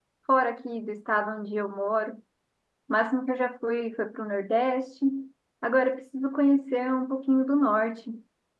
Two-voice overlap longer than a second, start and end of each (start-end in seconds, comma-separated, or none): none